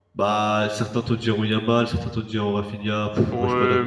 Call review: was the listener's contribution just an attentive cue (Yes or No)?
No